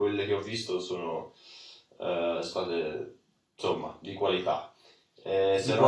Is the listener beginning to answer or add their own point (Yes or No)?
No